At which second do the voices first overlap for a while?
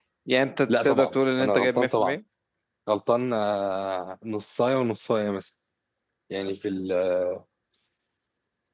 0.7 s

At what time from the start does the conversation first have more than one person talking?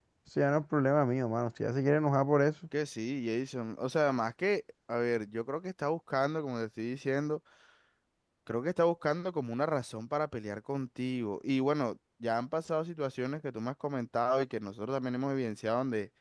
none

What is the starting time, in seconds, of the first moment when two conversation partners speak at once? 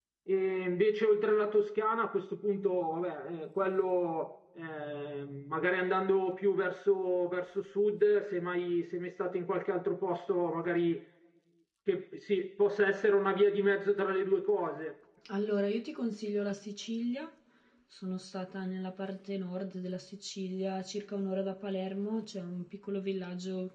none

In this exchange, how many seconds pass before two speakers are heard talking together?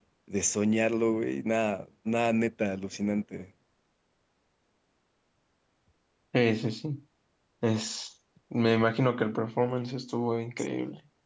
none

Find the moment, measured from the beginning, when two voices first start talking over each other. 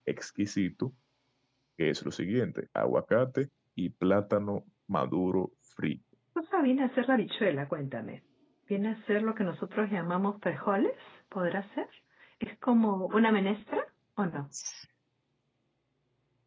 none

